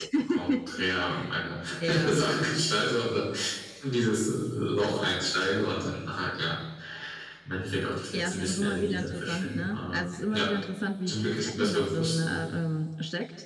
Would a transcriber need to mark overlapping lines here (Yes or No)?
Yes